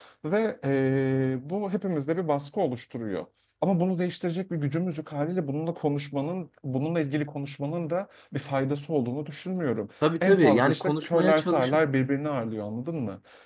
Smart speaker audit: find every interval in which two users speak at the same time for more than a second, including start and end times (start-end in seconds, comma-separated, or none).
10.2-11.8